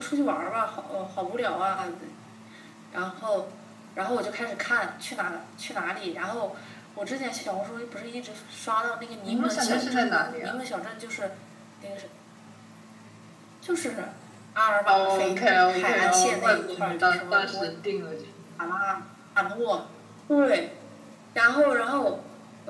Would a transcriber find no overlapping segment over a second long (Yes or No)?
No